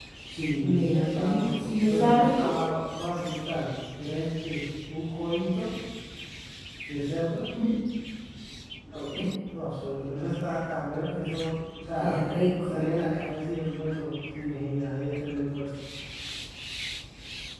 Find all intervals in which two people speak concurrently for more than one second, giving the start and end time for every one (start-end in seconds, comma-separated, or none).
0.6-2.5